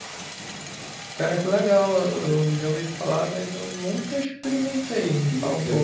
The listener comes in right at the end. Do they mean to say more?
Yes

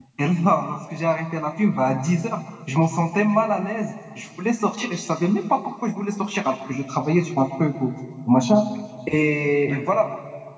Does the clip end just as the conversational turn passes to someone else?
No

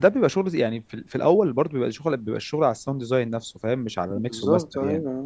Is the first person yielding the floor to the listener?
Yes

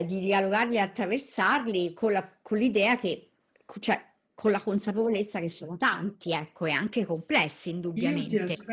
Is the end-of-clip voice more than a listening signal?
Yes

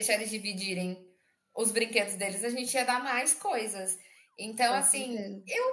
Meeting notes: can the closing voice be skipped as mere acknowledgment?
Yes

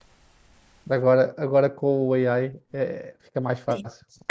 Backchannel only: No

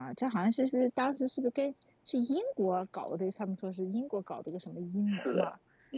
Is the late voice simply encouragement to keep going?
No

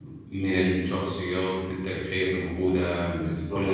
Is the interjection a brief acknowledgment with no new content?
No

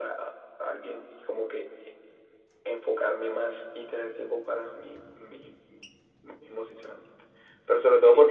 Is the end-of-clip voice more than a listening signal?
No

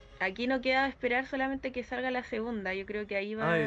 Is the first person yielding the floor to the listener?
No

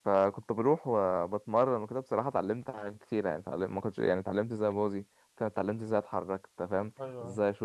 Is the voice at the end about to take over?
No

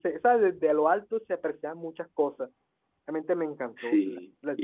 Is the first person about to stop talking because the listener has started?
Yes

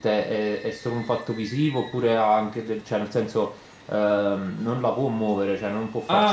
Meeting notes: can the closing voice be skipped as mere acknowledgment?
No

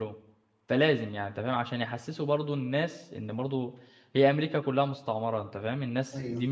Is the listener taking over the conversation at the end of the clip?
No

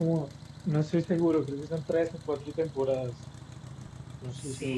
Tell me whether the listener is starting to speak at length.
Yes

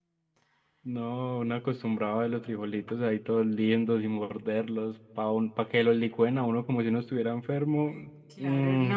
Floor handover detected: Yes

